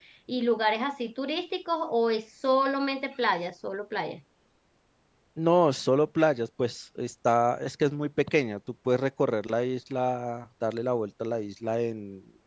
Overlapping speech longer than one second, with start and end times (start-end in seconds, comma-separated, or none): none